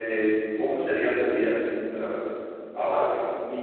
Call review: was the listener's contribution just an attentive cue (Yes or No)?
No